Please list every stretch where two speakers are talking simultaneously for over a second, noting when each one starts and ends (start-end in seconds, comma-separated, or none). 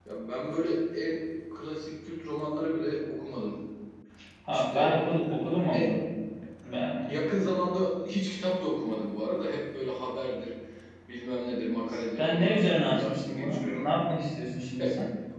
12.2-13.9